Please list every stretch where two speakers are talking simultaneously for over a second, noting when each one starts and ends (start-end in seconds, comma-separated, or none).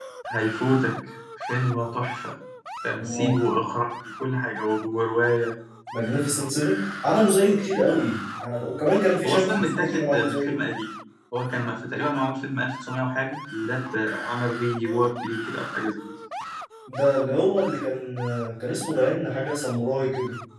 9.2-10.5